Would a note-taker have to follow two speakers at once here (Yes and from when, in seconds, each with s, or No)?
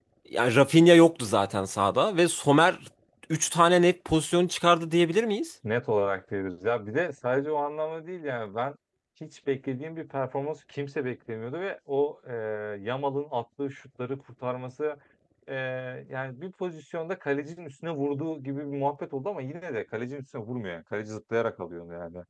No